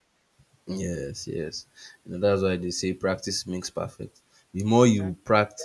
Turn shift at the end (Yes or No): No